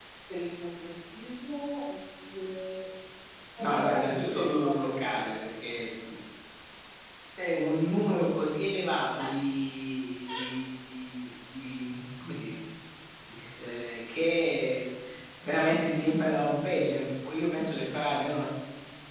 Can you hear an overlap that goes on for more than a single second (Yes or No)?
Yes